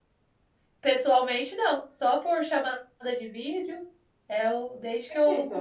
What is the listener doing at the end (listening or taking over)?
listening